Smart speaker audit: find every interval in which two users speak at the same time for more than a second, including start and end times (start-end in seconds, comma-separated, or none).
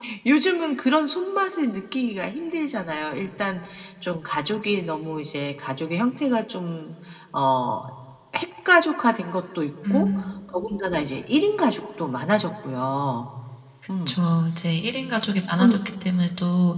none